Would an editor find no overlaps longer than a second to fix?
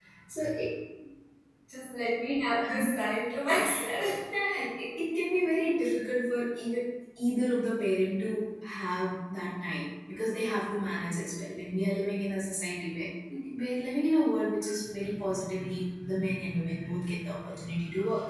Yes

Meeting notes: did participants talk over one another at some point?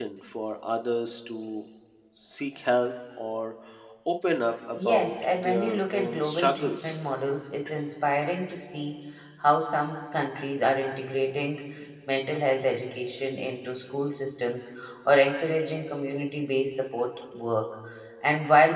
Yes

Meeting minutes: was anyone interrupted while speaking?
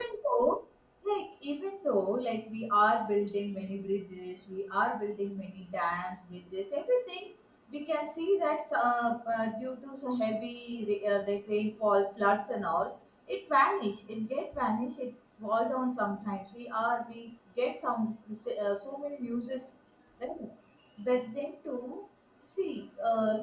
No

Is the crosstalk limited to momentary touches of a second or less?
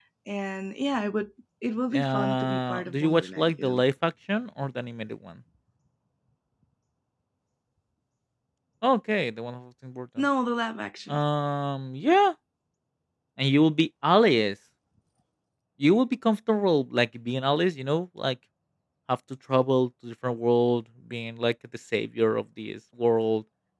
No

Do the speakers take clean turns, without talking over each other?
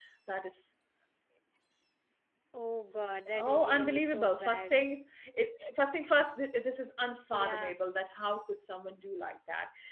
No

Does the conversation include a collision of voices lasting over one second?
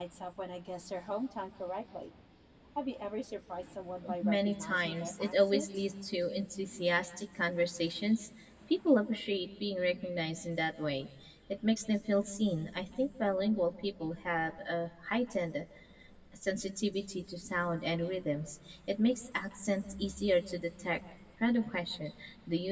Yes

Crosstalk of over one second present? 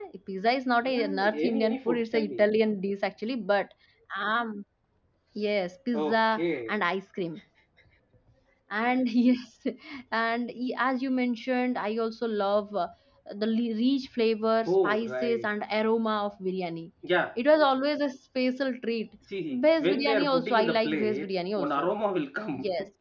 Yes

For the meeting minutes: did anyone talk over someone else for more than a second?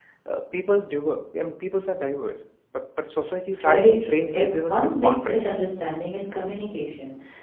Yes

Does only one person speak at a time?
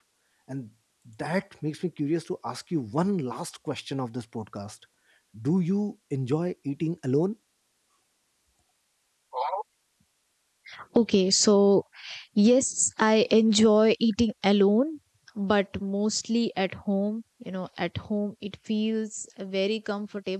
Yes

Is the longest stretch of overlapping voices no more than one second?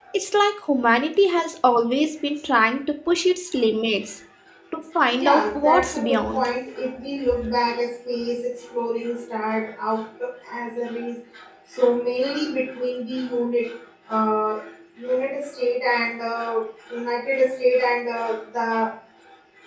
No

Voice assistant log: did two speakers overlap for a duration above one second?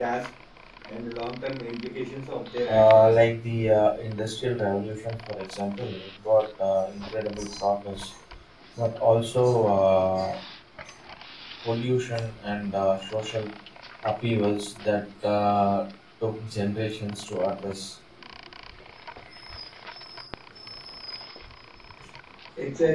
No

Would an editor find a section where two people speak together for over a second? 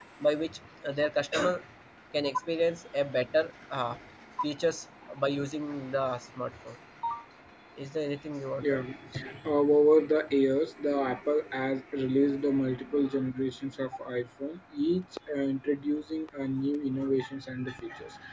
No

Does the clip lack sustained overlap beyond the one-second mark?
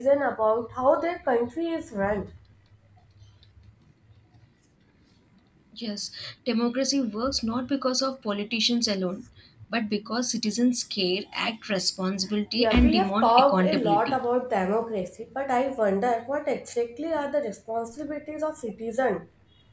No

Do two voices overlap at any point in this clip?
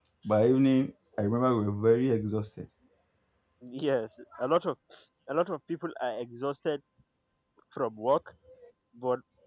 No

